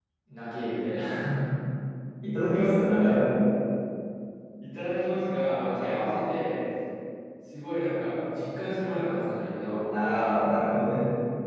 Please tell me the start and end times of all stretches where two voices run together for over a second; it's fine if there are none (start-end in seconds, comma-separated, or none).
none